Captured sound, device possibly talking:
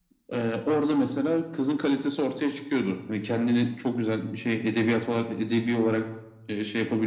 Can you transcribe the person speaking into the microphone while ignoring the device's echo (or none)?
none